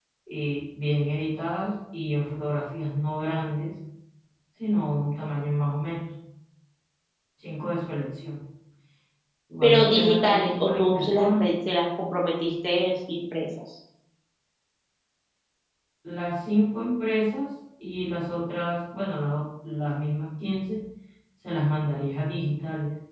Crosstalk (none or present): present